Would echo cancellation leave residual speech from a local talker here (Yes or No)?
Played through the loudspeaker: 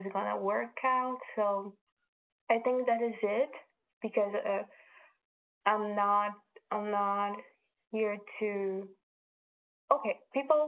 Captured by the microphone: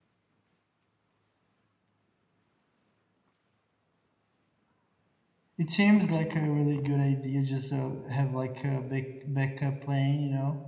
Yes